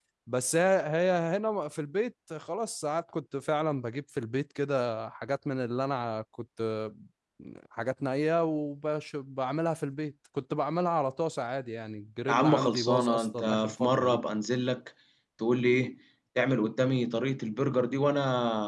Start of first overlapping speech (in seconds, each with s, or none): 12.3 s